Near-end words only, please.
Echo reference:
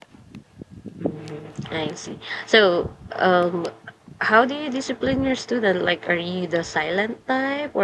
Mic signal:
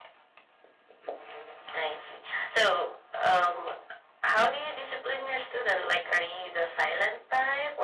none

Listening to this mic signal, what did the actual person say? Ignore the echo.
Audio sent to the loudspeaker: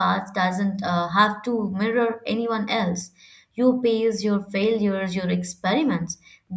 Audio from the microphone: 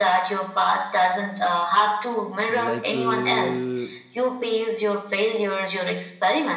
like. Uh,

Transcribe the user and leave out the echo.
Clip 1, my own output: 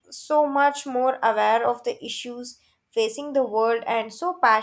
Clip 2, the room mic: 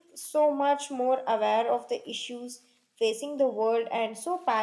none

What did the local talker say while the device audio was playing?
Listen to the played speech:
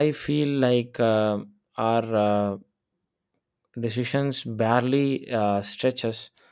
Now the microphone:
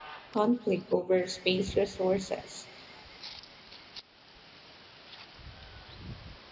conflict over space resources?

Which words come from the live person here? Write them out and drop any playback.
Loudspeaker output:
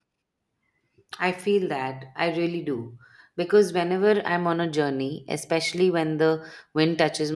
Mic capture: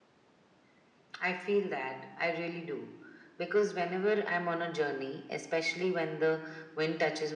none

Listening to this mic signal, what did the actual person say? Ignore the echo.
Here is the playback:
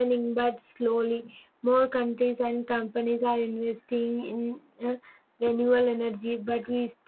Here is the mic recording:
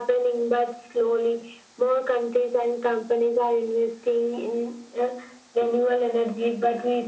none

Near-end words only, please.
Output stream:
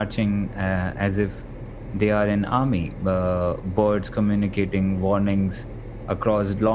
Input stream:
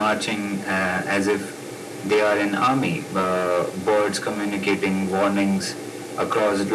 none

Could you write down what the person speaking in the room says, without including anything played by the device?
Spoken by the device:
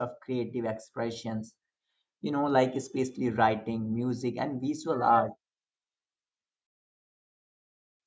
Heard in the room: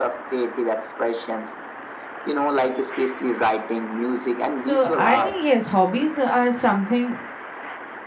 So I think yes, hobbies are something

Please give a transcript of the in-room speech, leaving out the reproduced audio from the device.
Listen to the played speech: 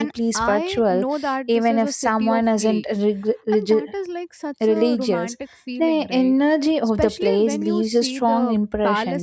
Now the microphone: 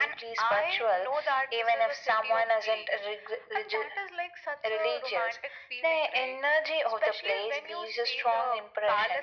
none

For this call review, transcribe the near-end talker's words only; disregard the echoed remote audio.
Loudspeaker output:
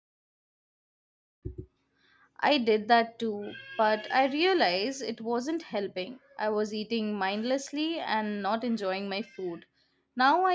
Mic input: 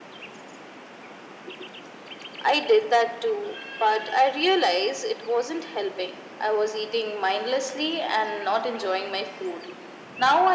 none

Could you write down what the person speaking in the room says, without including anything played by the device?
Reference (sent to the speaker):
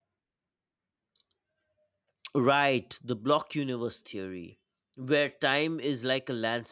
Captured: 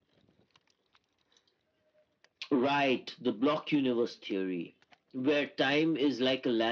none

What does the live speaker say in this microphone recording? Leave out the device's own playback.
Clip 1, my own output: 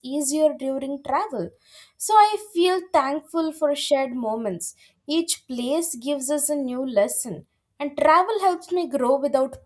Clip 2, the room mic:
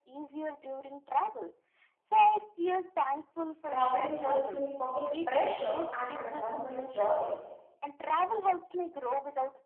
Traveling helps me forget pressure and remember joy.

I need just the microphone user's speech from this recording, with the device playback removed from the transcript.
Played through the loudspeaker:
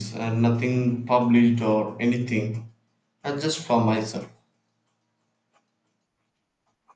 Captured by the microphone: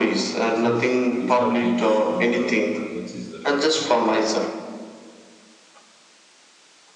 it is. It helped me to slow down and notice the little detail.

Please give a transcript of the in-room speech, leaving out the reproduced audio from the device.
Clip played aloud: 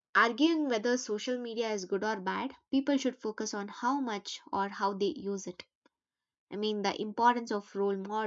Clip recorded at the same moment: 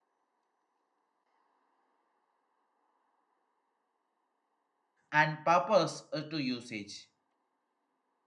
and purpose uh, to usage.

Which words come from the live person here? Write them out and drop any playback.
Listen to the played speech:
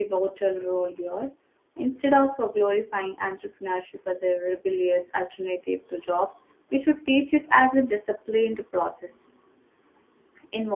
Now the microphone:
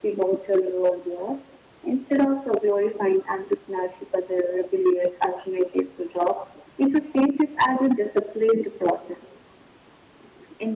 none

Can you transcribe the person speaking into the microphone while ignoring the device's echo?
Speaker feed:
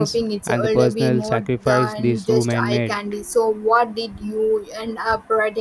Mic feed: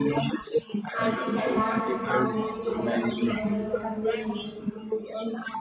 I think I have to go with Monsieur Gustave.

